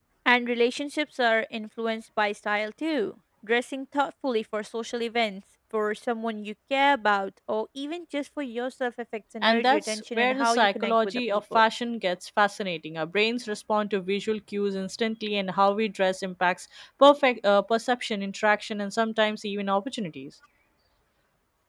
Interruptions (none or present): present